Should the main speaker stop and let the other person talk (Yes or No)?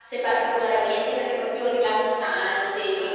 Yes